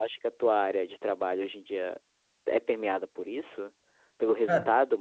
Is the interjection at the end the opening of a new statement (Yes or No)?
No